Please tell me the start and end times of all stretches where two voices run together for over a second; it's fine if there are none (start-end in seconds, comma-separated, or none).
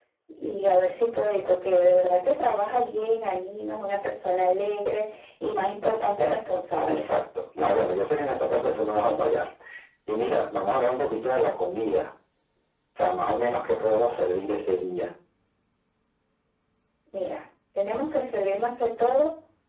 none